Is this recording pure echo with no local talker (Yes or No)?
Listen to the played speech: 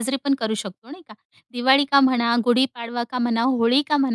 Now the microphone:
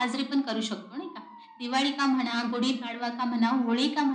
Yes